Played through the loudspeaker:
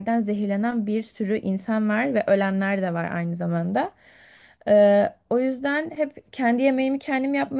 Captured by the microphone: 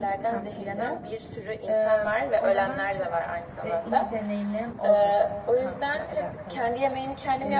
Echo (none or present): present